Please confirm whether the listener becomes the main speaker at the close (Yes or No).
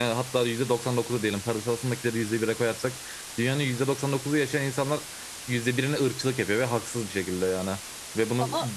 No